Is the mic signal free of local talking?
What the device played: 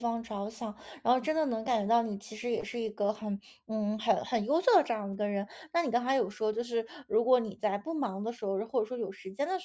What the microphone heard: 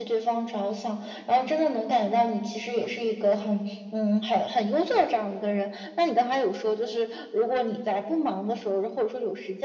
Yes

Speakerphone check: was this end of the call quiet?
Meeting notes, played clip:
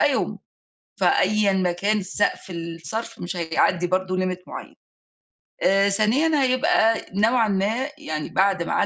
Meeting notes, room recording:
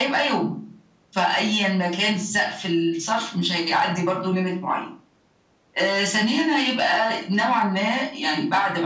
Yes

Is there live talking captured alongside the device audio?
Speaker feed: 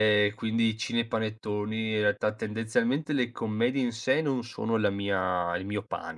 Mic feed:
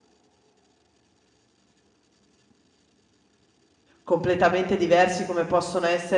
Yes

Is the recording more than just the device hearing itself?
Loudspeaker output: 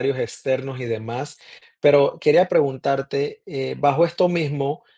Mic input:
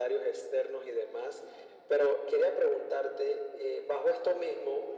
No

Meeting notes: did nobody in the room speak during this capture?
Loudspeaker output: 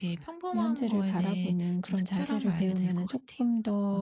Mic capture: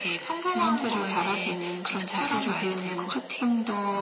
Yes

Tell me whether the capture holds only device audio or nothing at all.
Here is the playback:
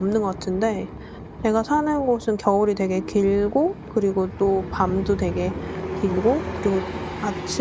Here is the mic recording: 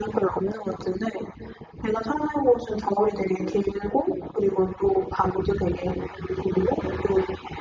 Yes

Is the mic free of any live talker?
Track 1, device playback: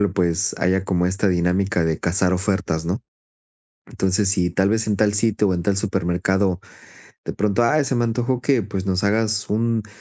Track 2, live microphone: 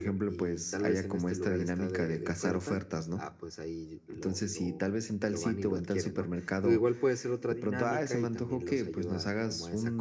No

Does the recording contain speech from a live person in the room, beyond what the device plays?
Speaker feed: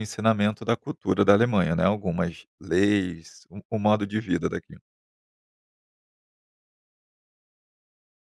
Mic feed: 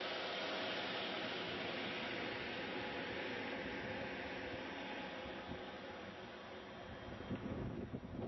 No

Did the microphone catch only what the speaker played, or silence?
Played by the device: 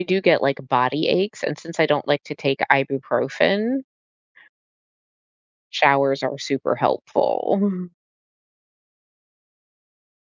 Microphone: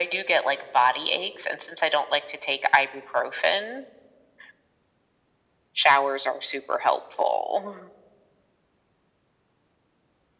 Yes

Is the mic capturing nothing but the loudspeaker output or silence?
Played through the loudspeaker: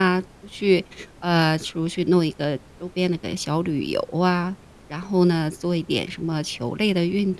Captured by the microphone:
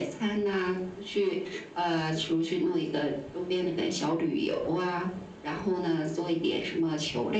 Yes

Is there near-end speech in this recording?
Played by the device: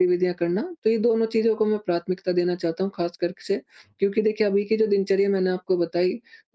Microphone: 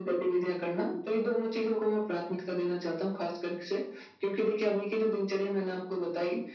No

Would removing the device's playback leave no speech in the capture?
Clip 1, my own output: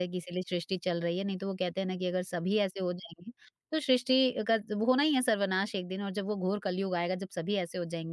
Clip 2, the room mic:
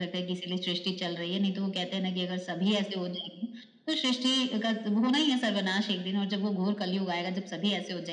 Yes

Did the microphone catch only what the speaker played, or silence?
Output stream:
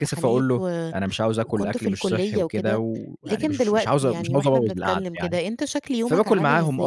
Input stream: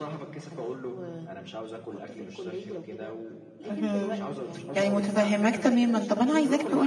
No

